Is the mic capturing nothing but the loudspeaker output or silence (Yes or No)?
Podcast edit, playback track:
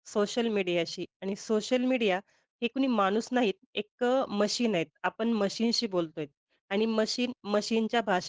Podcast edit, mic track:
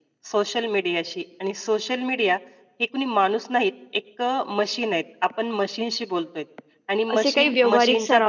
No